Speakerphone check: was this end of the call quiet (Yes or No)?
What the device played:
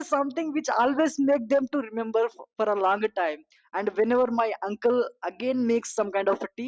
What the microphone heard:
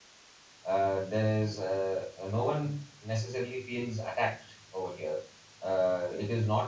No